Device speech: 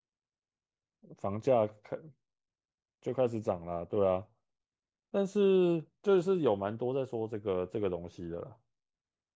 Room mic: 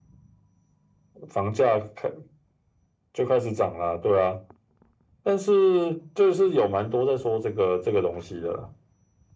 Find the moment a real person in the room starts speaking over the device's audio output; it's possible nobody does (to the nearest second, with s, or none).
none